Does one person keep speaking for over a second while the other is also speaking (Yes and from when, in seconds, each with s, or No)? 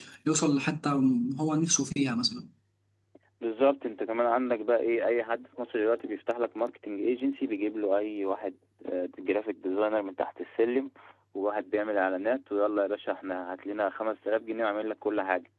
No